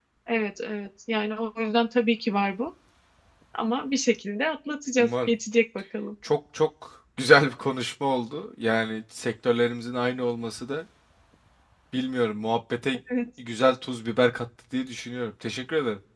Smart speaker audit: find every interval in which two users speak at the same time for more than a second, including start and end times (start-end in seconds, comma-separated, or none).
none